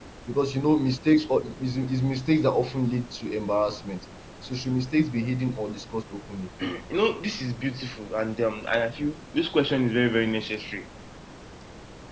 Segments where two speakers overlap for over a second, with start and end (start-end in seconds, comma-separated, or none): none